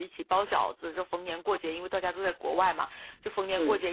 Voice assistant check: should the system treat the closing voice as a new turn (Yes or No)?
No